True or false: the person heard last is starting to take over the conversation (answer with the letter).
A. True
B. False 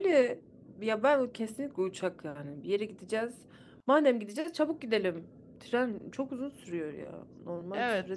A